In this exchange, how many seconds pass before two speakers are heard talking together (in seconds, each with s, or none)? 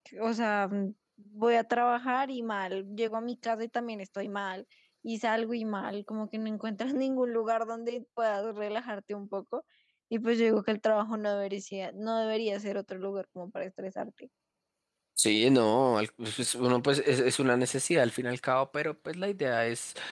none